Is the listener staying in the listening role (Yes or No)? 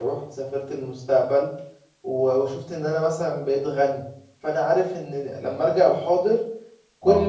Yes